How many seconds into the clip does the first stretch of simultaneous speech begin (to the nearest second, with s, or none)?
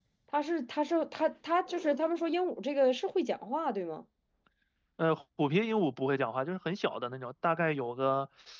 none